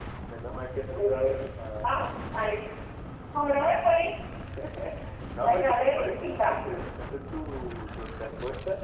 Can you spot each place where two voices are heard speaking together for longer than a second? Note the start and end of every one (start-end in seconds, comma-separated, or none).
5.4-6.7